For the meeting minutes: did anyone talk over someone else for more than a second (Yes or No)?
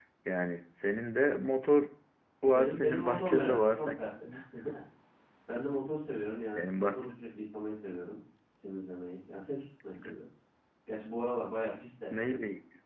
Yes